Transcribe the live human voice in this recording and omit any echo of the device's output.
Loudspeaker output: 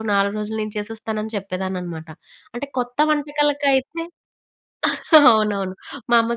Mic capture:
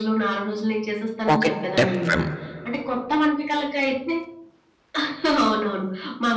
పాకెట్ ఎఫ్‌ఎమ్.

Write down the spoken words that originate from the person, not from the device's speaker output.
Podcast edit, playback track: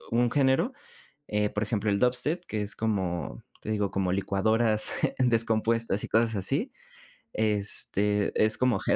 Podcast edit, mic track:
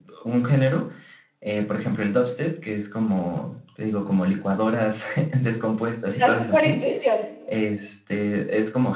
lo haces por intuición?

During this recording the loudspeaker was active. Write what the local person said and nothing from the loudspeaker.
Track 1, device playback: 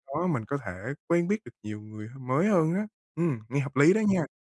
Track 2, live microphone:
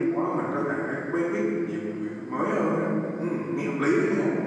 none

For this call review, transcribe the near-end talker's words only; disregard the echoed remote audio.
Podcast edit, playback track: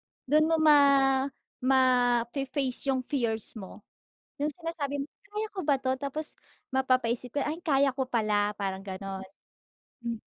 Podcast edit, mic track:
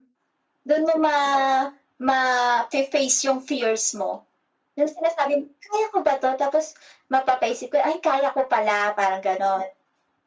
none

